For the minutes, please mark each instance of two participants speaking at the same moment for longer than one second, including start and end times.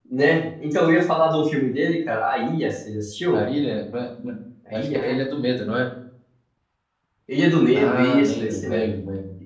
7.7-8.9

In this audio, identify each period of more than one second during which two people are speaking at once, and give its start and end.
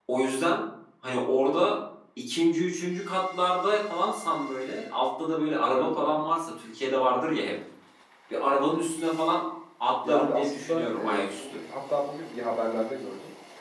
10.0-11.5

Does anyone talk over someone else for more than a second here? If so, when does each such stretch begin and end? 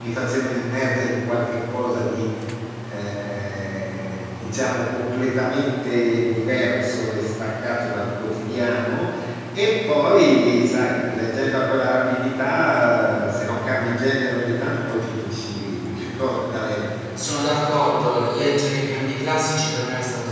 none

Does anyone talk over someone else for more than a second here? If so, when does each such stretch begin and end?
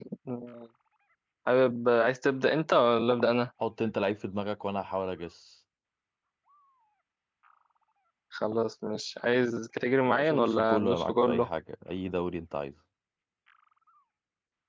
10.1-11.5

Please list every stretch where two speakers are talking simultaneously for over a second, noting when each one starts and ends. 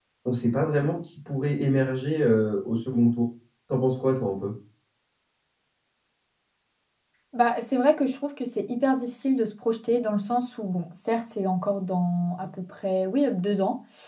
none

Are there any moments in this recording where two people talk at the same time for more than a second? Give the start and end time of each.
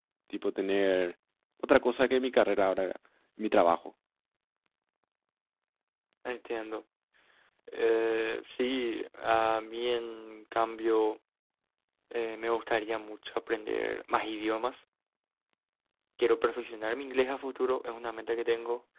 none

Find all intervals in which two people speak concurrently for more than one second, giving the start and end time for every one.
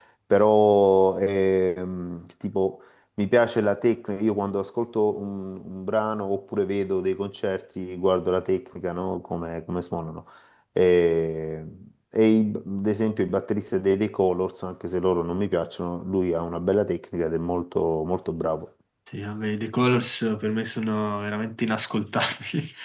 none

